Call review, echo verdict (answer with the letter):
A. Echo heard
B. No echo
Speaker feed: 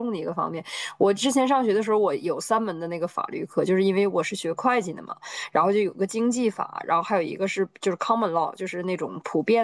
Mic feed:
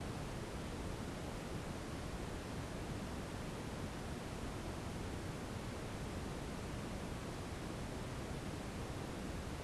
B